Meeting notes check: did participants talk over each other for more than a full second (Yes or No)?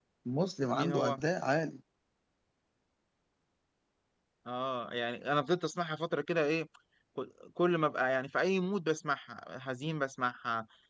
No